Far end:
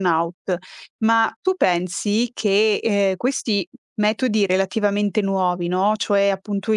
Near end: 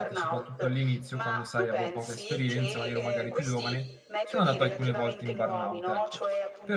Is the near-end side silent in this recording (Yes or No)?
No